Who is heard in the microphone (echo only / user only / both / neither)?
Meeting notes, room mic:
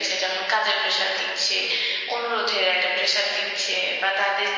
echo only